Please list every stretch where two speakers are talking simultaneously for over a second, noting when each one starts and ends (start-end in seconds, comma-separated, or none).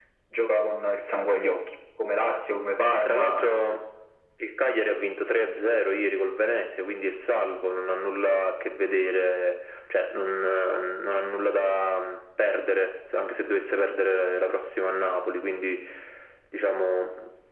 none